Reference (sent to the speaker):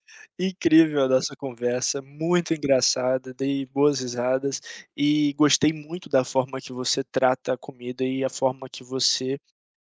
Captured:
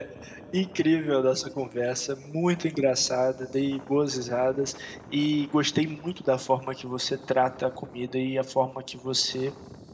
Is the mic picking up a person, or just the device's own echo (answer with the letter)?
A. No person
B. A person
A